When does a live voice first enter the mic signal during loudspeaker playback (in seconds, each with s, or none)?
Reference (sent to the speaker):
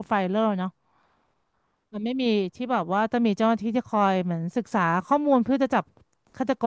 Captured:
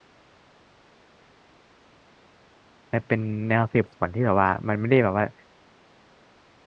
2.9 s